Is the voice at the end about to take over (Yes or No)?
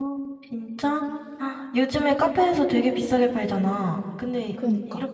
No